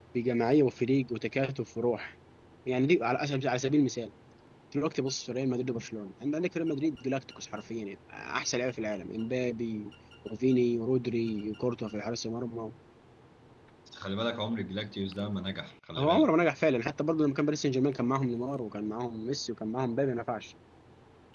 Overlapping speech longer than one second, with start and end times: none

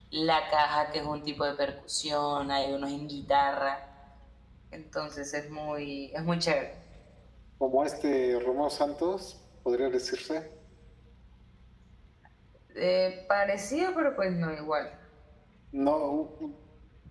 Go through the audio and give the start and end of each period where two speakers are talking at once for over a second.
none

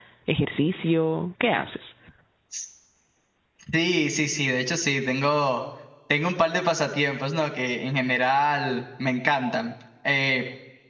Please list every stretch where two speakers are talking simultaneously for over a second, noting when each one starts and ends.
none

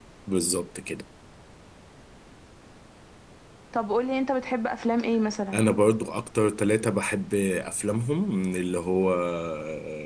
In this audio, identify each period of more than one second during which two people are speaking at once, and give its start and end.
none

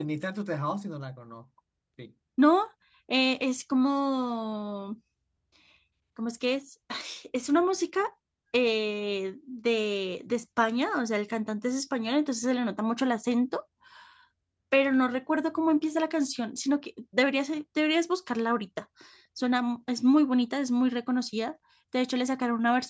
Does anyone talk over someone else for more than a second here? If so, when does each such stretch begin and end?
none

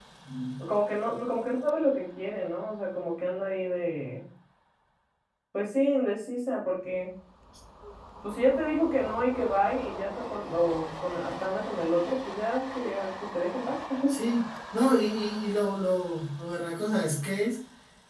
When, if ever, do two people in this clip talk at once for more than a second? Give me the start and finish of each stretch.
none

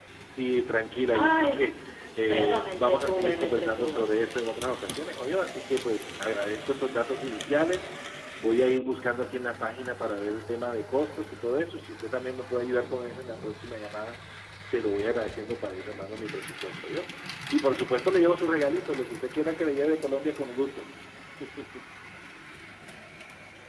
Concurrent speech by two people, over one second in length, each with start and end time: 2.3-4.1

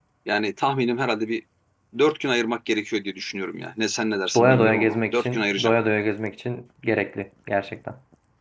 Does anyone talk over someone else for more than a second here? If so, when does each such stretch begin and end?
4.3-5.7

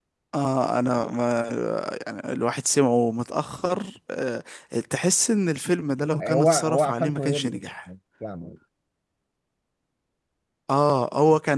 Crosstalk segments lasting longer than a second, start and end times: 6.2-7.6

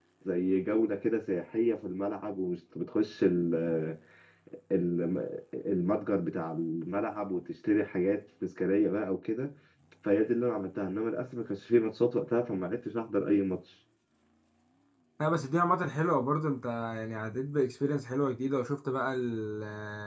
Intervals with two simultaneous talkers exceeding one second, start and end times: none

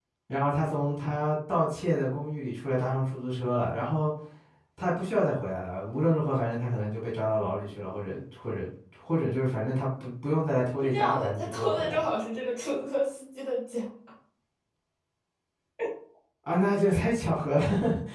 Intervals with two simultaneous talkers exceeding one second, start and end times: 10.8-12.1

